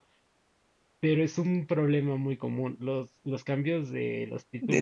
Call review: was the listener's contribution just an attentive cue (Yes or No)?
No